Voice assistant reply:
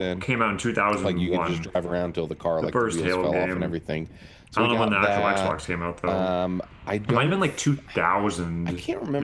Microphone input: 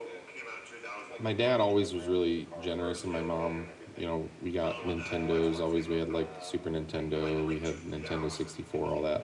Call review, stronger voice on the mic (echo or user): user